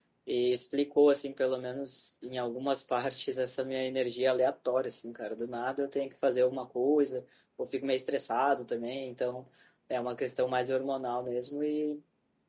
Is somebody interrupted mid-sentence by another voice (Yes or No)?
No